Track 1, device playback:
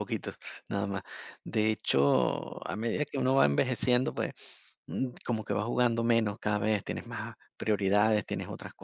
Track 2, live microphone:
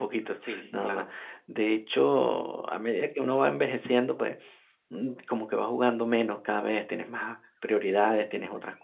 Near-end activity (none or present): present